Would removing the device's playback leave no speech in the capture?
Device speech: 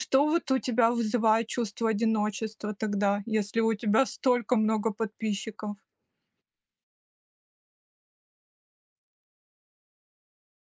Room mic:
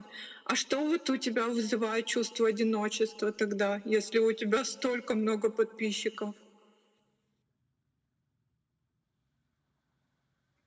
Yes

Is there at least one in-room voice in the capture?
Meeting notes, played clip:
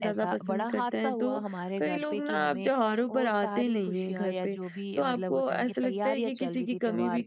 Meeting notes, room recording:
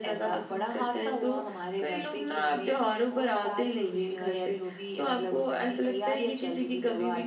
No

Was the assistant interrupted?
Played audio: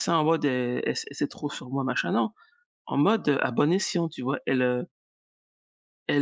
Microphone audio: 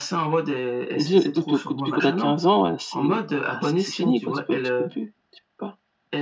Yes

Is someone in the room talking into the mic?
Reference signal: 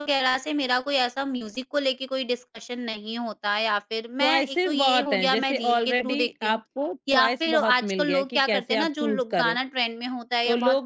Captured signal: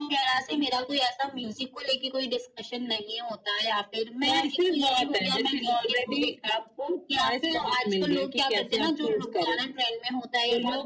No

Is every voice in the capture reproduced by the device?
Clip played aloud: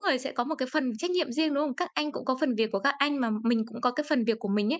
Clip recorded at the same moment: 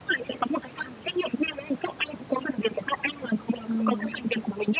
No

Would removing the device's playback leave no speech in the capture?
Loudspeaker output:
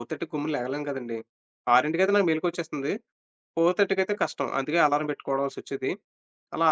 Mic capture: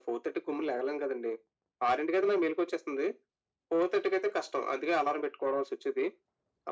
Yes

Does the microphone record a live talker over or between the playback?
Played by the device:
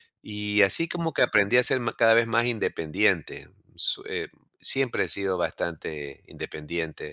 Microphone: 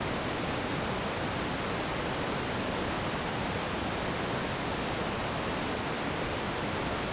No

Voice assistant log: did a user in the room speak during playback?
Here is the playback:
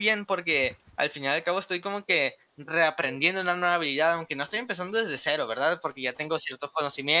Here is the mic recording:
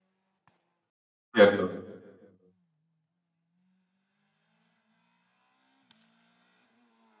Yes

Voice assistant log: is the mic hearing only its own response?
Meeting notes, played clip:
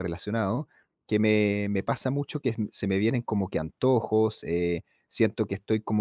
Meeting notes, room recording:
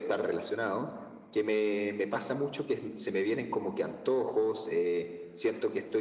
Yes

